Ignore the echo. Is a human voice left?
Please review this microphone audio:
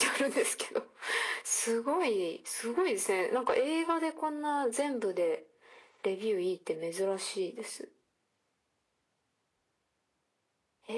No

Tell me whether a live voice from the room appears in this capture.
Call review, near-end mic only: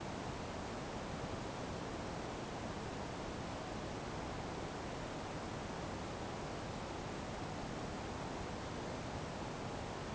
No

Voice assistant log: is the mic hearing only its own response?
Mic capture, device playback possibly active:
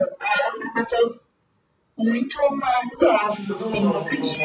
No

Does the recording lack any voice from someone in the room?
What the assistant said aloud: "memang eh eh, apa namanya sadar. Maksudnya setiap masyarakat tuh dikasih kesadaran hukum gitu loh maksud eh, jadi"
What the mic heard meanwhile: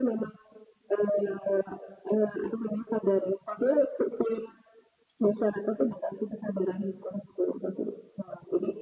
Yes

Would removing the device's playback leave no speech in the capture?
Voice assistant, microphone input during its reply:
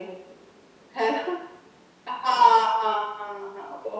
Yes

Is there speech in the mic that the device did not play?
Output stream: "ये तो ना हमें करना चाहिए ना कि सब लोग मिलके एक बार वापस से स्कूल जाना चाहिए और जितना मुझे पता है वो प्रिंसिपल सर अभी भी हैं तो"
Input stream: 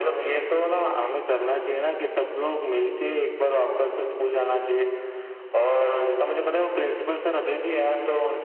No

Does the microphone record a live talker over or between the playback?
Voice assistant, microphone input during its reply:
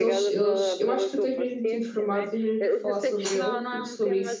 Yes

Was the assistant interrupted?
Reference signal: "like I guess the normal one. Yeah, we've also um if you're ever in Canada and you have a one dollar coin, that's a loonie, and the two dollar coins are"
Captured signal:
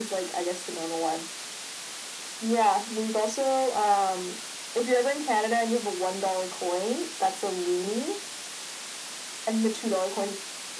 No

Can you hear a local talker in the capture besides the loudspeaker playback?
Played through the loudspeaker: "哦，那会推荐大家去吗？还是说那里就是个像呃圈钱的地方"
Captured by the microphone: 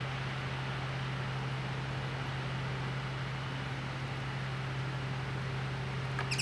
No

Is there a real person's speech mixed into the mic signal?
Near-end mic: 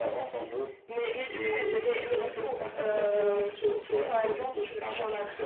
No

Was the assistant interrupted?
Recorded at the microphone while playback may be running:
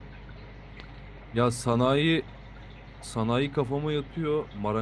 Yes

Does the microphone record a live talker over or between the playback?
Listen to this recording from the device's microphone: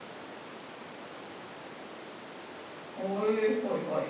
Yes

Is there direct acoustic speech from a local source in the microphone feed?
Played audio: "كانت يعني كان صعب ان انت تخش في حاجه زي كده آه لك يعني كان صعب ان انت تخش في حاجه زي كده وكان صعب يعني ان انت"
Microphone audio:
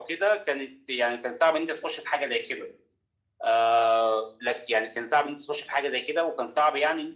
No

